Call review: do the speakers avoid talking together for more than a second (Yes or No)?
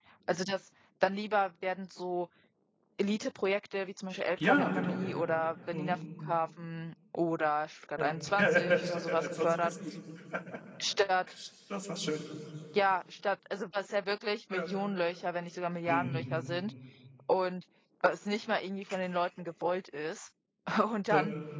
No